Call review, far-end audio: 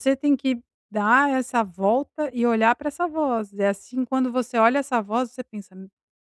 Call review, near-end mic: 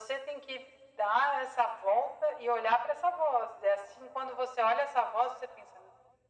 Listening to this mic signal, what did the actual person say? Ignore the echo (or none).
none